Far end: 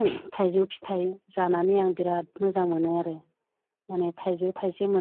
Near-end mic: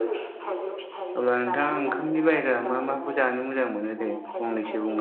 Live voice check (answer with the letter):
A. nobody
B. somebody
B